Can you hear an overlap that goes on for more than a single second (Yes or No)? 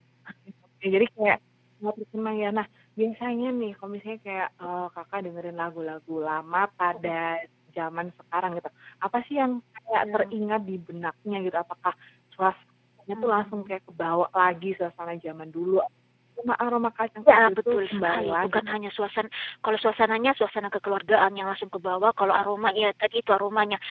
Yes